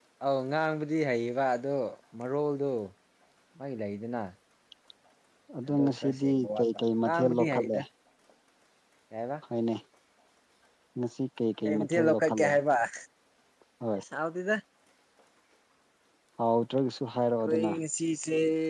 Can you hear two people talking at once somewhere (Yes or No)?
Yes